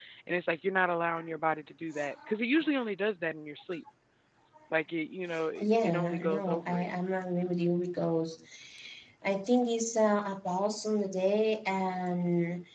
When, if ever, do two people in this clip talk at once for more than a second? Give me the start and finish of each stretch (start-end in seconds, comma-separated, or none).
5.6-6.9